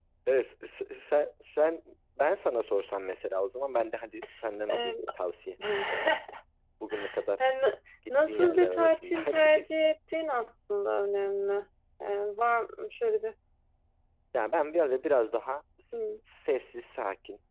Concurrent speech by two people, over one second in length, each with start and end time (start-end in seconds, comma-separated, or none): 8.3-9.7